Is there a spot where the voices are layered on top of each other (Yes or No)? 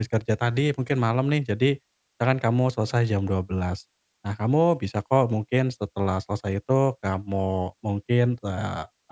No